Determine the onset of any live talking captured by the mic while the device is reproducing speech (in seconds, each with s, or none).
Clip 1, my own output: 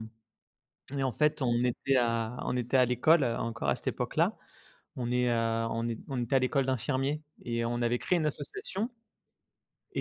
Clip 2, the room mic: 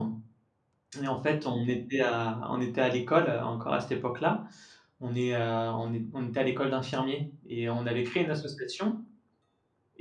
none